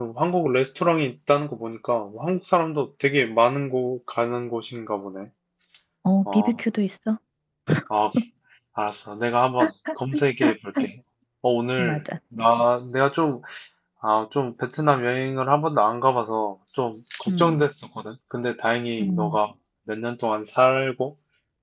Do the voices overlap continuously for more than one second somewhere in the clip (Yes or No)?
No